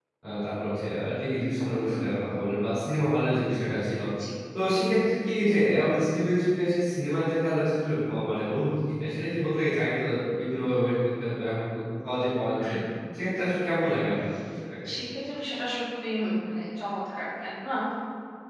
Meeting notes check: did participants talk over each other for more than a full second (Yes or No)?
No